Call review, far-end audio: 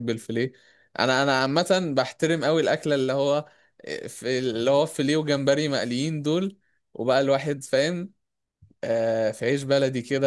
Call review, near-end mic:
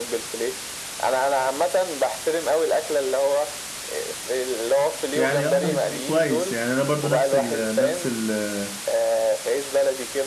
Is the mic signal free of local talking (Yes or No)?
No